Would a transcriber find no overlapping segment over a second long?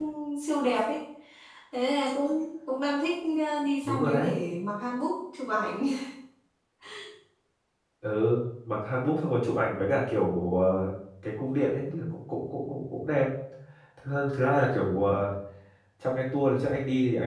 Yes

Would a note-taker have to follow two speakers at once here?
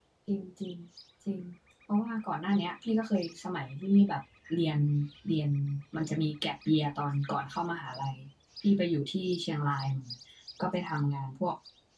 No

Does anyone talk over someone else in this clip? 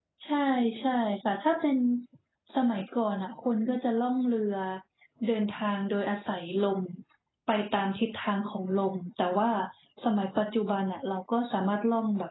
No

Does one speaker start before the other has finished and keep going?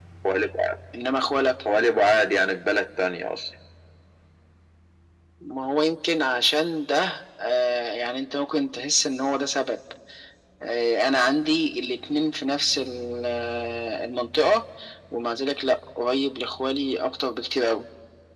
No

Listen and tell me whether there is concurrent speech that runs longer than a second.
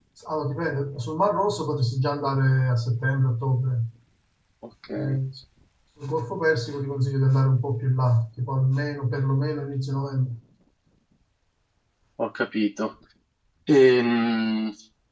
No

